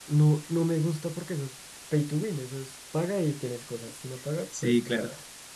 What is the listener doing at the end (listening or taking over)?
taking over